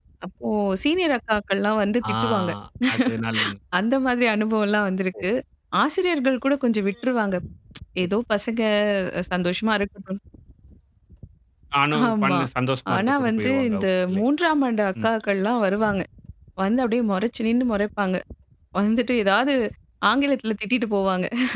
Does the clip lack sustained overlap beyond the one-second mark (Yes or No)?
No